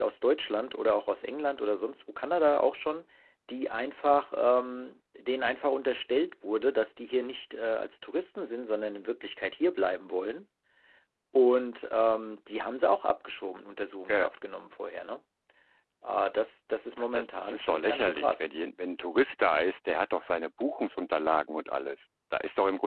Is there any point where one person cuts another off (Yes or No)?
Yes